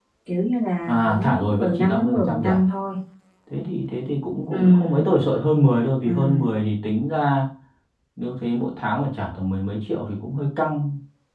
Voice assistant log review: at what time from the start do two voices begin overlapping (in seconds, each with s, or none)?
0.9 s